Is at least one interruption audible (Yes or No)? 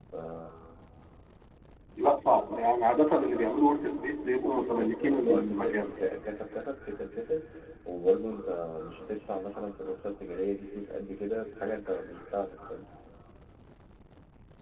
Yes